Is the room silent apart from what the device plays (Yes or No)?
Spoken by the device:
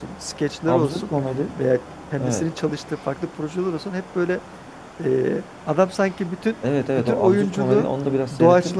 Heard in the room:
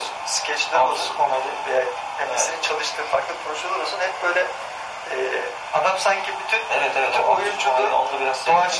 Yes